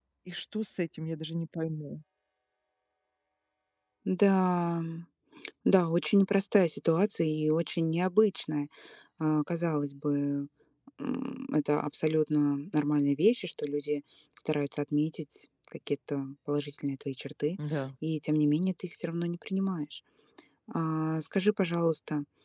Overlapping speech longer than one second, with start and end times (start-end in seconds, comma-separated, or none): none